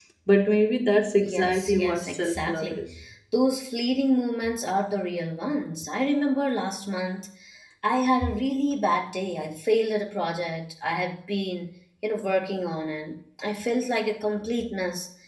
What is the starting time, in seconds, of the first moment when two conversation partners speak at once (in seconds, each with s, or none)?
1.2 s